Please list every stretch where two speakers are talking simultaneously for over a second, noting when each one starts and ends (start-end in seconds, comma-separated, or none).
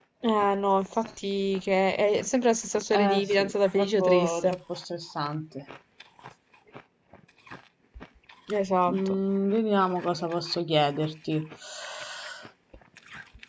2.9-4.6